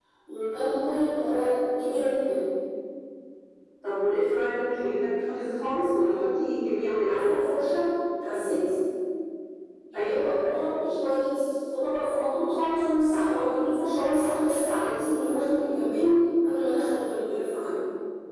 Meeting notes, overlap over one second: none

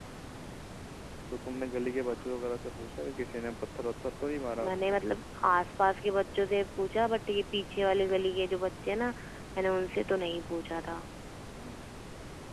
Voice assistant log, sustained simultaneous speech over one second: none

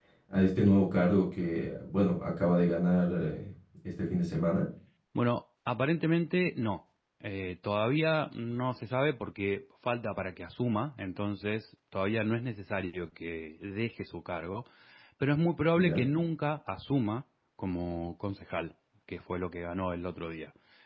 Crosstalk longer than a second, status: none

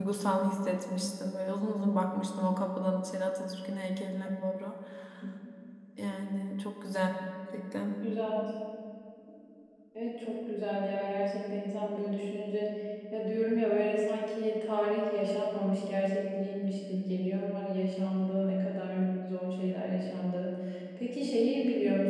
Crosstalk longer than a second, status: none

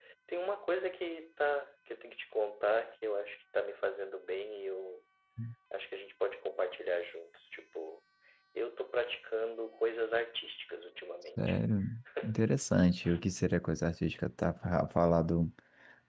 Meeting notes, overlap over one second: none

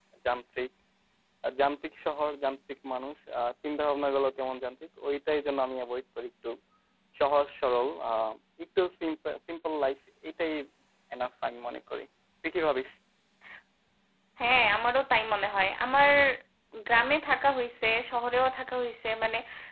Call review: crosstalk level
none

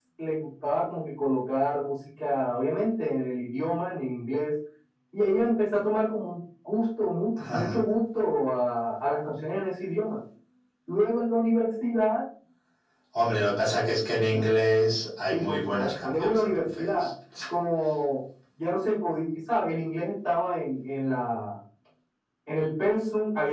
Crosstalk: present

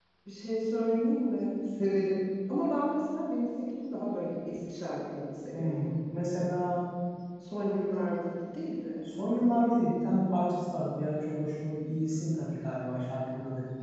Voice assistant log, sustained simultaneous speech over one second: none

